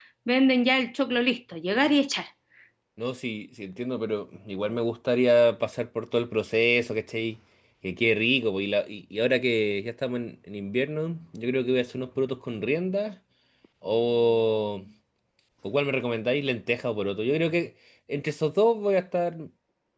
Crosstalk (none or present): none